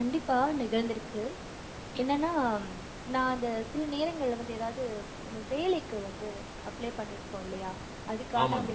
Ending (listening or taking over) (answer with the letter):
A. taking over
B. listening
B